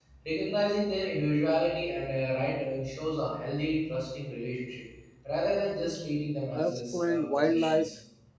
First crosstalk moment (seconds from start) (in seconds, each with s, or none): 6.5 s